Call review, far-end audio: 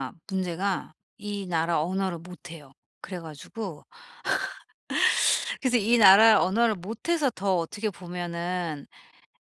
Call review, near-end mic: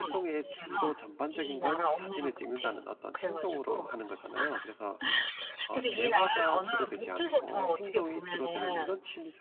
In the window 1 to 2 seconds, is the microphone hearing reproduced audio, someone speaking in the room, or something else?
both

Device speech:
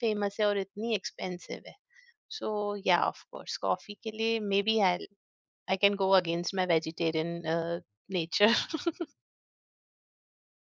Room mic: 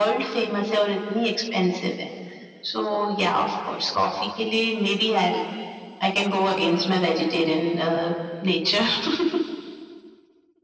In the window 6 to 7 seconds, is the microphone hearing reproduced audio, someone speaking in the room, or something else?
echo only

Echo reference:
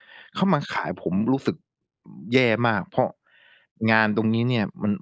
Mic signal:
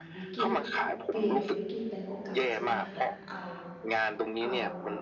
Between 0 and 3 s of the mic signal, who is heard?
both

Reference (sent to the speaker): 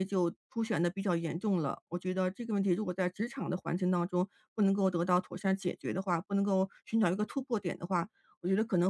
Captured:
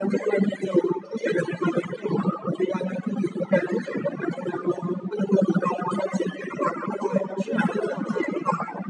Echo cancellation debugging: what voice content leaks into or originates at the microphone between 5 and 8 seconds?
both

